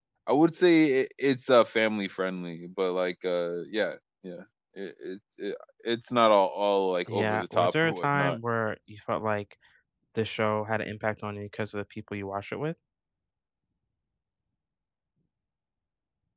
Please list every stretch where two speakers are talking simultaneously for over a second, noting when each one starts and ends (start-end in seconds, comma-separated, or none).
7.1-8.4